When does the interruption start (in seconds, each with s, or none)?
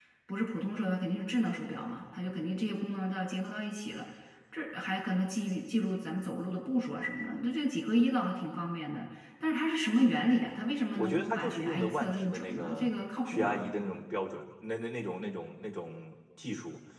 10.9 s